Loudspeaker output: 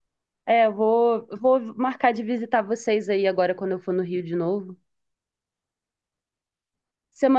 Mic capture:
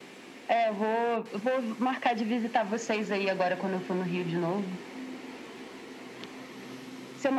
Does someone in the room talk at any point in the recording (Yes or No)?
No